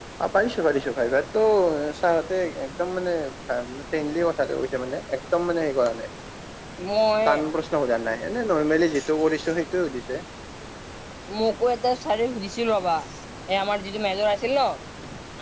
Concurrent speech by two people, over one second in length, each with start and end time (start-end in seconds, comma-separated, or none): none